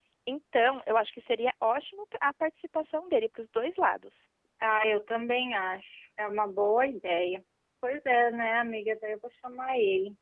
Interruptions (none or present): none